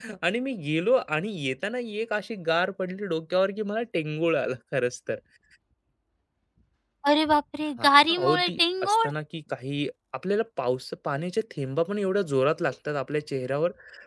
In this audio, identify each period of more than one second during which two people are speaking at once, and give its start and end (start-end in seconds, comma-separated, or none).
7.8-9.1